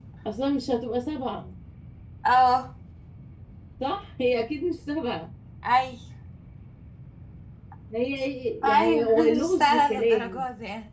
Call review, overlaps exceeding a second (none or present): present